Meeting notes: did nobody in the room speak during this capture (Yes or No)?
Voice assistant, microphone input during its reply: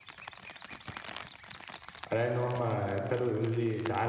No